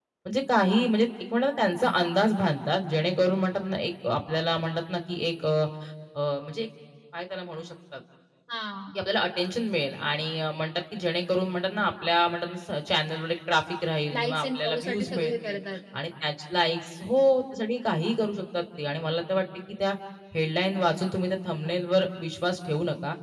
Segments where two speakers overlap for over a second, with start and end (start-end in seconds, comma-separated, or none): 14.1-15.6